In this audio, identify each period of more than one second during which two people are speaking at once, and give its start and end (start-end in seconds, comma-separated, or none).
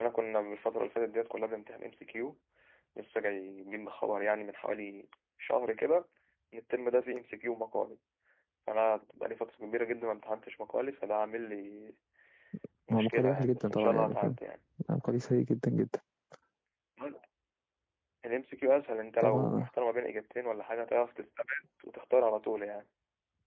12.9-14.4